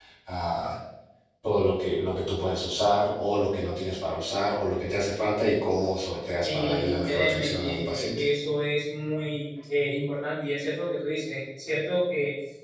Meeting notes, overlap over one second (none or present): present